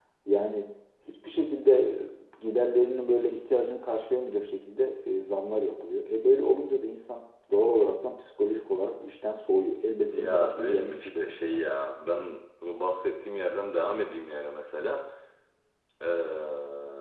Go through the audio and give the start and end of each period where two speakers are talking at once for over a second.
10.1-11.6

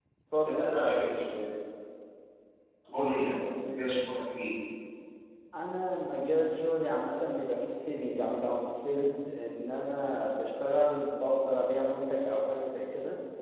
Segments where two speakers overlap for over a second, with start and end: none

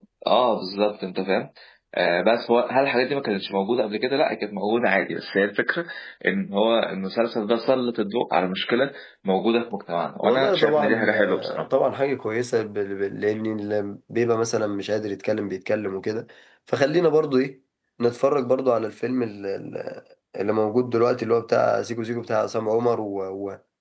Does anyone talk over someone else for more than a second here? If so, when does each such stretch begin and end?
10.2-11.7

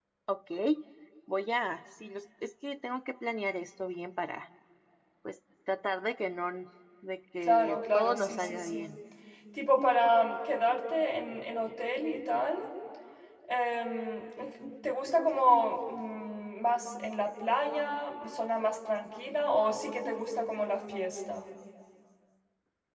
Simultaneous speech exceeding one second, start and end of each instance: 7.4-8.9

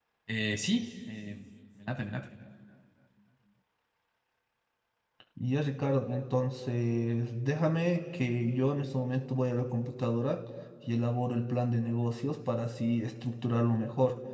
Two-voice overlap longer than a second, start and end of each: none

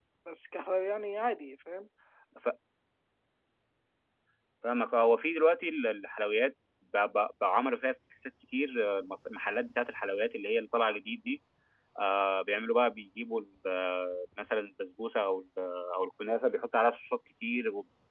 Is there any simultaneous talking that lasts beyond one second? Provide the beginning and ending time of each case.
none

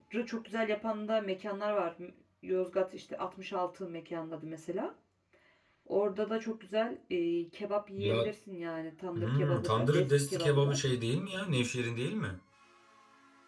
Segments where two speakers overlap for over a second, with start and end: 9.2-10.8

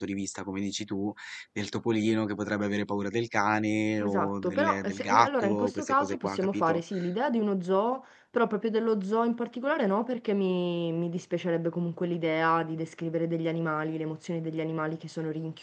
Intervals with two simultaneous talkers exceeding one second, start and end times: 4.0-6.8

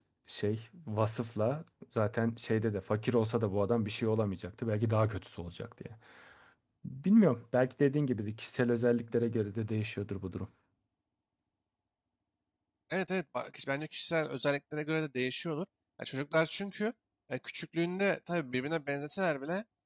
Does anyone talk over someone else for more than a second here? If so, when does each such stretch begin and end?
none

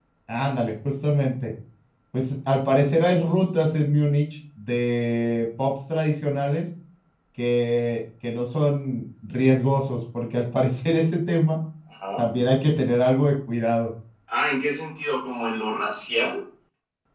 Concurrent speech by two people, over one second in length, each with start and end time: none

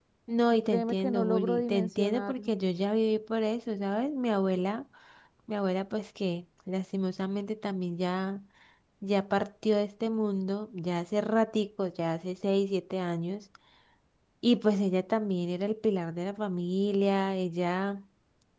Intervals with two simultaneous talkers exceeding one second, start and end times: 0.7-2.5

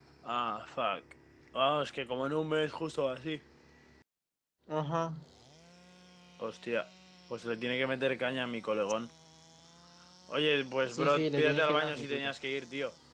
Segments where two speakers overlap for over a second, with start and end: 10.9-12.3

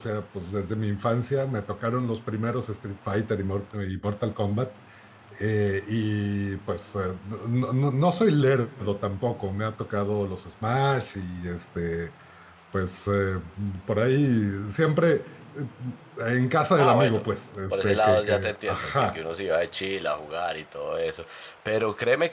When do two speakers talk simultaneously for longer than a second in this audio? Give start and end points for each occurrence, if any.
17.7-19.2

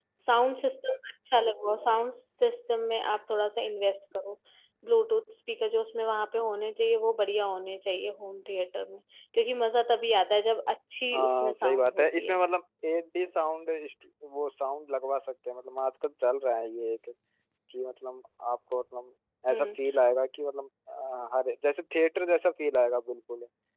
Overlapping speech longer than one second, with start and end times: 11.1-12.4

